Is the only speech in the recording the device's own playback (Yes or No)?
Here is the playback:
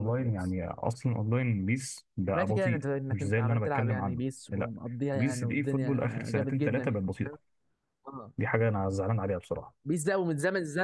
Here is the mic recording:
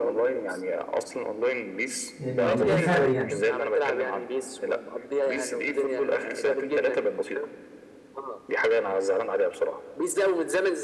No